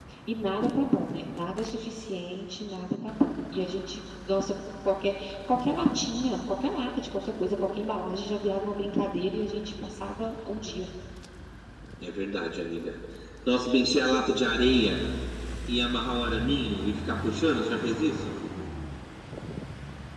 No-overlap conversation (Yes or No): Yes